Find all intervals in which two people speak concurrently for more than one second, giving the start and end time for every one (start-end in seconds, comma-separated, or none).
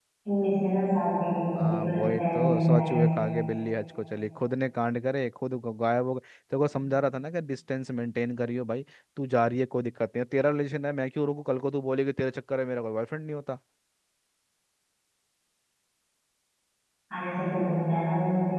1.6-3.2